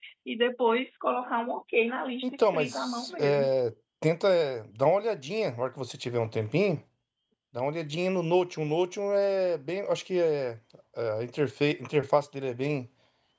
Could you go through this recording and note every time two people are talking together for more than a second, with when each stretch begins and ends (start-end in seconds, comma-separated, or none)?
2.2-3.5